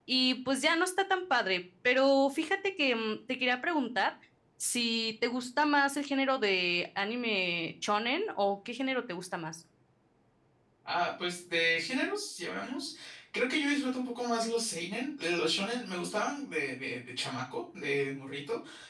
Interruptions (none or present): none